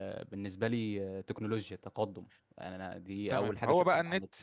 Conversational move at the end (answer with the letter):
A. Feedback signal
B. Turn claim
B